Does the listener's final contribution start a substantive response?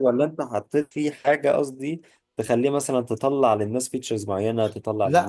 Yes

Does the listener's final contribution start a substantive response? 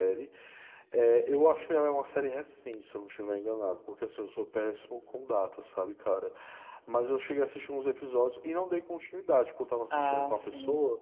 No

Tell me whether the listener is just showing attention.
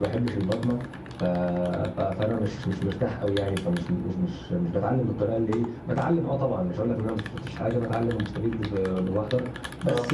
Yes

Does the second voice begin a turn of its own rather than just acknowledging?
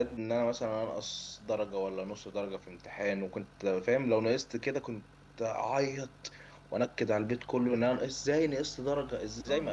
Yes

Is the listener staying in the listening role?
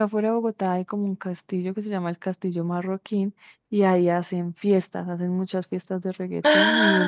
Yes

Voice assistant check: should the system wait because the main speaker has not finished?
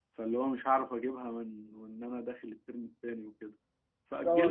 No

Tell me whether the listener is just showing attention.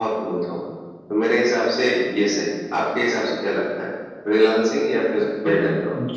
No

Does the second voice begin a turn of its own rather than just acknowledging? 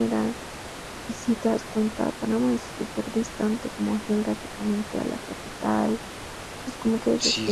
Yes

